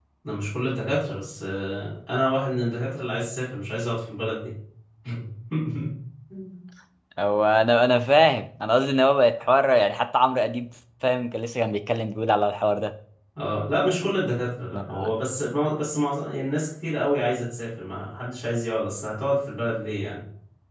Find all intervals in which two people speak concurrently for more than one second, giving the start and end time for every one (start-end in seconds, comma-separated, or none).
none